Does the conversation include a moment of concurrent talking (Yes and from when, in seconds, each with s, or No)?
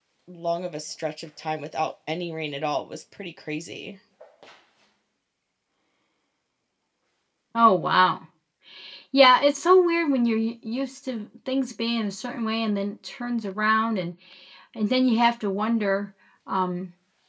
No